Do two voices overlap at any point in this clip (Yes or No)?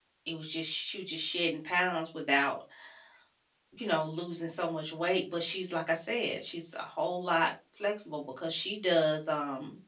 No